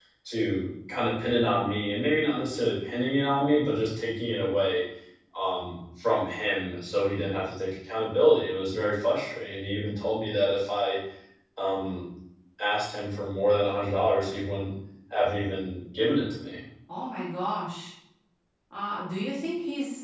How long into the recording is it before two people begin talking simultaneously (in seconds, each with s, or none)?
none